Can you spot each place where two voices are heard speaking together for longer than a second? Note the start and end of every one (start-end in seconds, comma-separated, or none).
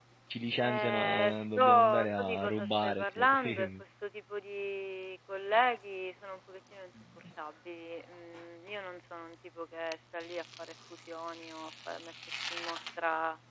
0.6-3.8